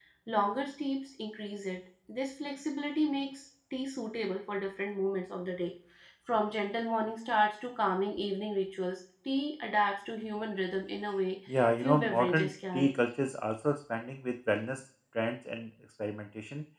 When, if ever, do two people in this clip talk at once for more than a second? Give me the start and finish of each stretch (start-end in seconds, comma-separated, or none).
11.5-12.9